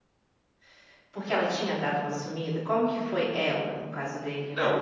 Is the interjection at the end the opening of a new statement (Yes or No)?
Yes